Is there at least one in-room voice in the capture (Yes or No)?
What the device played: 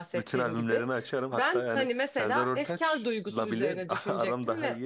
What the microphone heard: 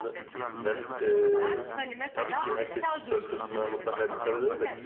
Yes